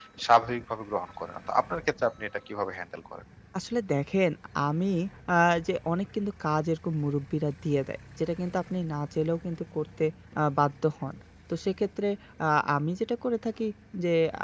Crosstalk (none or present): none